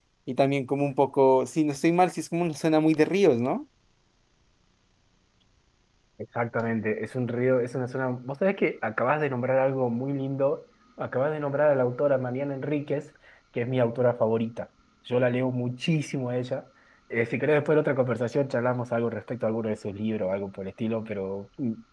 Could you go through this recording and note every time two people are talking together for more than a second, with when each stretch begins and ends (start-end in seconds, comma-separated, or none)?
none